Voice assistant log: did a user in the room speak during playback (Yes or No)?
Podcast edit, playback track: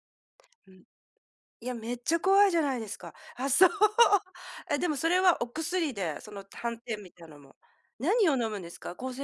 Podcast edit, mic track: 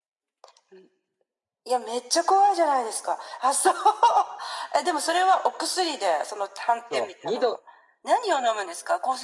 Yes